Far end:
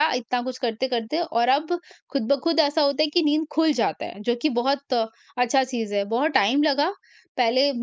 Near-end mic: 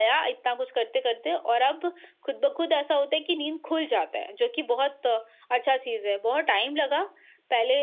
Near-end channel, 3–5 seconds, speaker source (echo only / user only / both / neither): echo only